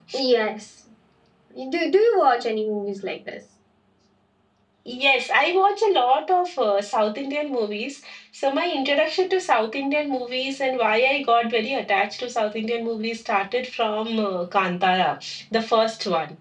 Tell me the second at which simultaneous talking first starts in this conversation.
none

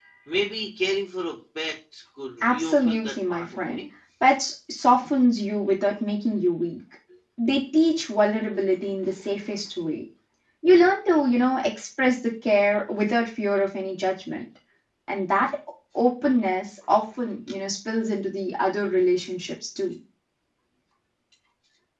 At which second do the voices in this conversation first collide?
2 s

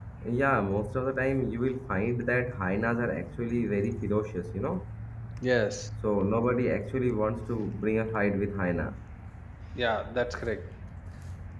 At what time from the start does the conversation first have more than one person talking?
none

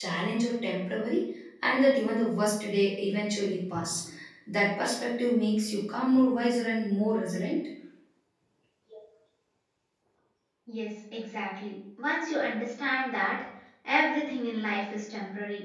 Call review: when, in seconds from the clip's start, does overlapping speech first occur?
none

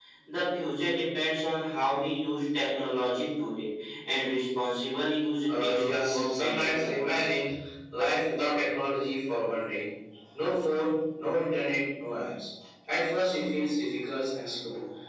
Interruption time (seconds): 5 s

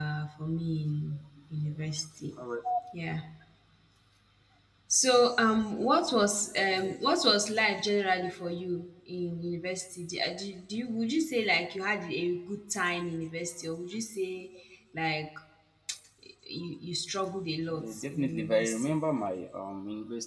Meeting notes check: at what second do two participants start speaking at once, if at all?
18 s

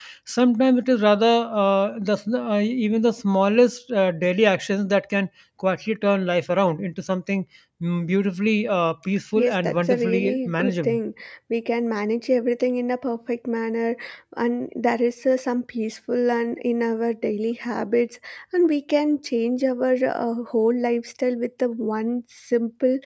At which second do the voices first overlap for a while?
9 s

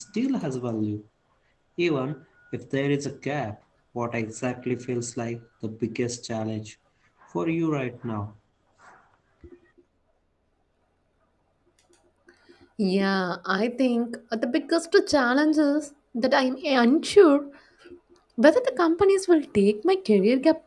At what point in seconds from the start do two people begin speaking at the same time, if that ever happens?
none

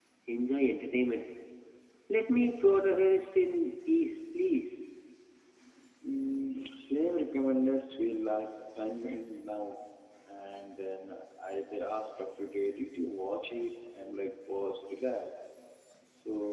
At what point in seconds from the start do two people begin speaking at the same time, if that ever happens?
none

